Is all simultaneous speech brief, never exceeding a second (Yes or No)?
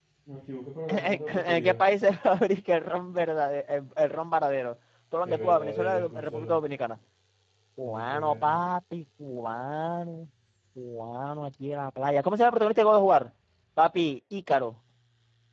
No